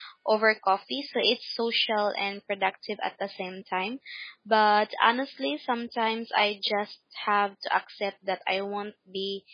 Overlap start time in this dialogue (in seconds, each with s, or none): none